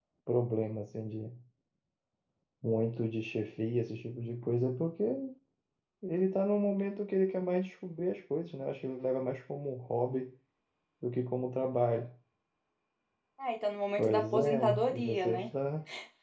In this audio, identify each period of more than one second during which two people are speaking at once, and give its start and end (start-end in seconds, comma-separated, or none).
14.0-15.5